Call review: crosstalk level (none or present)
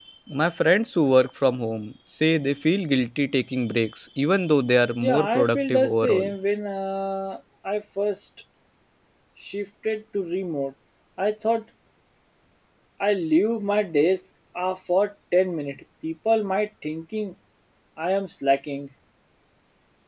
present